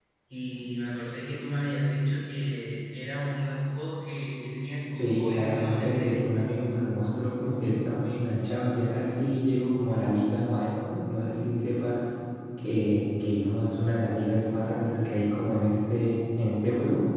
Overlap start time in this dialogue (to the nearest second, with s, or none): 5 s